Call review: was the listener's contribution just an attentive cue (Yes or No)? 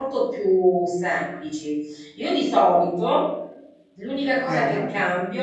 Yes